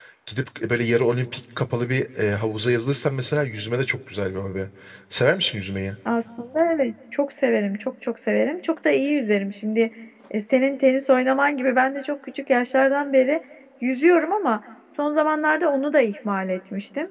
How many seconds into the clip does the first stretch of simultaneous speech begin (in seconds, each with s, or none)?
none